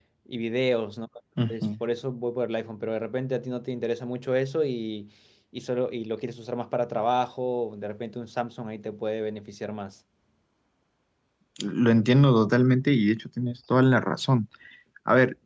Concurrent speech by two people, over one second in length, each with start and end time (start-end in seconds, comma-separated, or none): none